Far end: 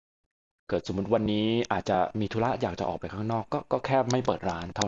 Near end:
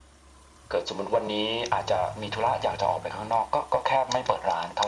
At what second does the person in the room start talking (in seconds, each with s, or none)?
none